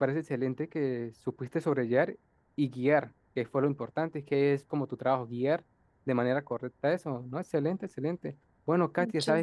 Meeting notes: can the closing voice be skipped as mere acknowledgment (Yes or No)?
Yes